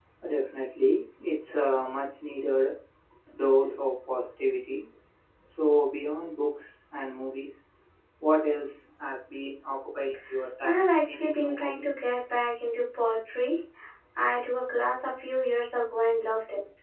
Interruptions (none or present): present